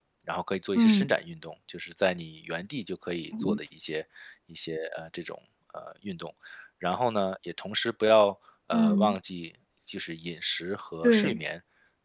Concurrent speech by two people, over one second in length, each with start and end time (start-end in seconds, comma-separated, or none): none